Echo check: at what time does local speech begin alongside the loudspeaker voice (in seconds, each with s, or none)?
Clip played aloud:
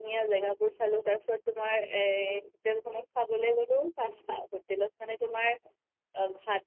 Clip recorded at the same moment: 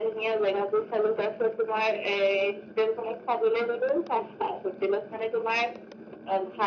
none